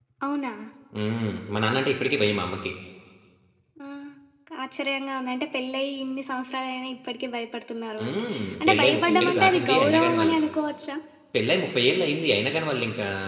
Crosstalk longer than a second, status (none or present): present